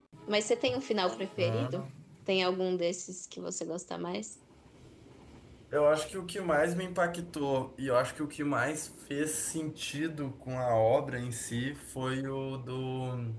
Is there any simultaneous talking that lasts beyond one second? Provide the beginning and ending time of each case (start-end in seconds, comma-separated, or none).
none